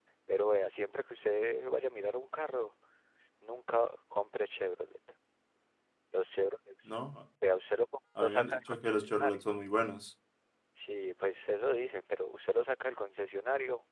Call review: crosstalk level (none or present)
present